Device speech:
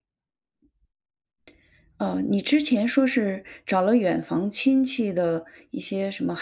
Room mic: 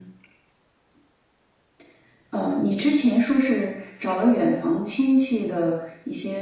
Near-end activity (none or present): none